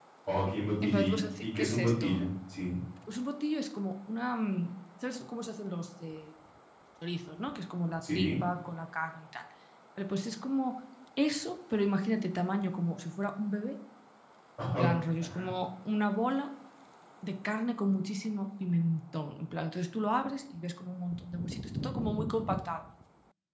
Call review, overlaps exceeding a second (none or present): present